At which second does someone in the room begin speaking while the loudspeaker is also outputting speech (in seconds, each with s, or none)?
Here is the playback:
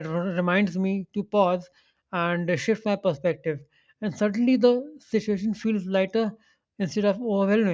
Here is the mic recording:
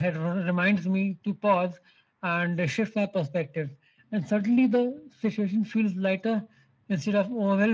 none